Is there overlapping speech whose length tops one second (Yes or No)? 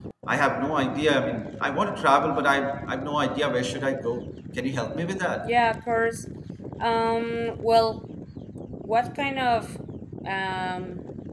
No